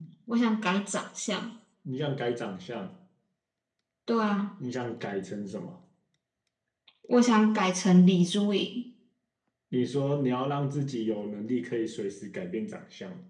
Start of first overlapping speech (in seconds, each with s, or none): none